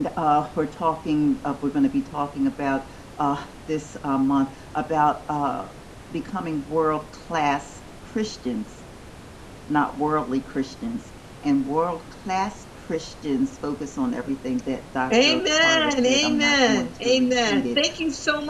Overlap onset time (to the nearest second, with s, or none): 15 s